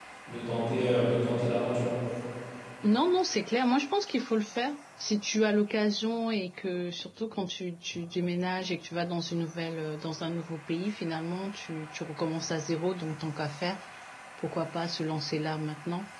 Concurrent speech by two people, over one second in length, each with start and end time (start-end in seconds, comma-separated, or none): none